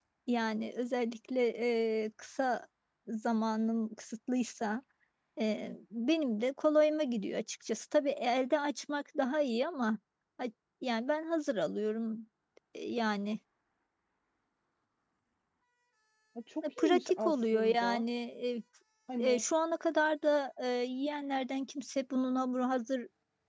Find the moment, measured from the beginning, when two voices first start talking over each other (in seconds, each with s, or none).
16.8 s